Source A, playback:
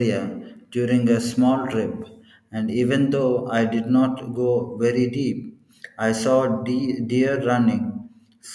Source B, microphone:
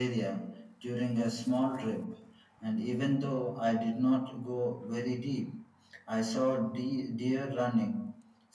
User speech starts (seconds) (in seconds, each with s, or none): none